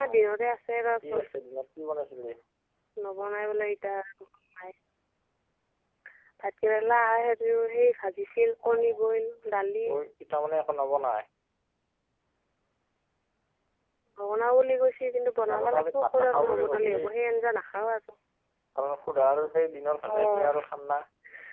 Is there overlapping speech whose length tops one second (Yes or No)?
Yes